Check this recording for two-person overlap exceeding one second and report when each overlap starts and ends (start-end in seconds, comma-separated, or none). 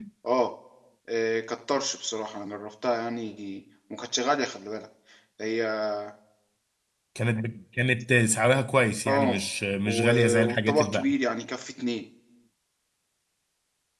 9.9-11.1